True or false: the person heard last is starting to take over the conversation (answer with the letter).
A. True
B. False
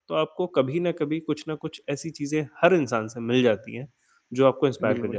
B